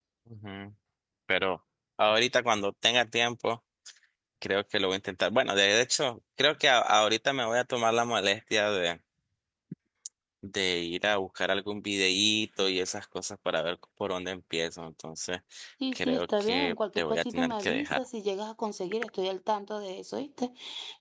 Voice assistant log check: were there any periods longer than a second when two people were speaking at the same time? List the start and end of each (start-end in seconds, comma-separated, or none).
15.9-18.0